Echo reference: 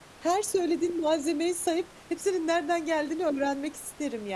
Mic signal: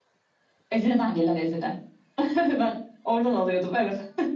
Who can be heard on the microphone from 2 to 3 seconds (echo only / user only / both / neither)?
user only